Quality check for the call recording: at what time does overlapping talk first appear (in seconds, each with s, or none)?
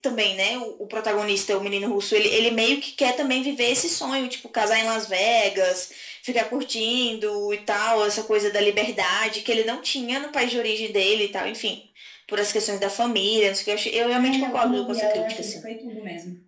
14.2 s